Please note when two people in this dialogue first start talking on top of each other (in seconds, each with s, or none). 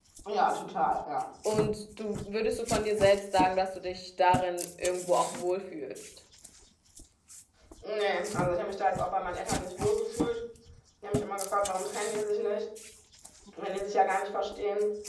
none